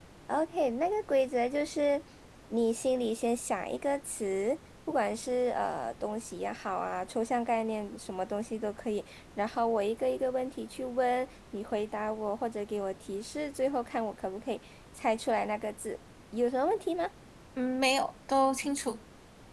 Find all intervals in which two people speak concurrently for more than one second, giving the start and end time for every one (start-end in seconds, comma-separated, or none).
none